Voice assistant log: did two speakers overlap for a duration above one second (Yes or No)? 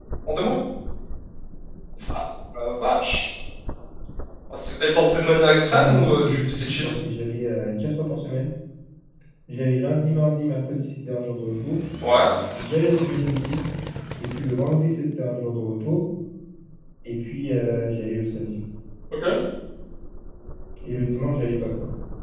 Yes